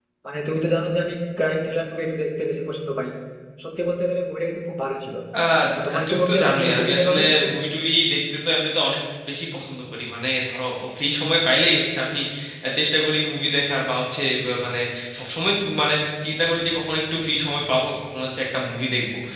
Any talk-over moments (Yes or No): Yes